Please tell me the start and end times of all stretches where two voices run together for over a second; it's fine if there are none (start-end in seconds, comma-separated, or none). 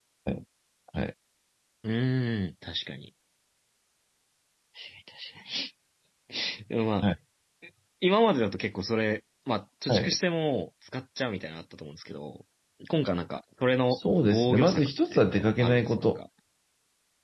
13.9-16.2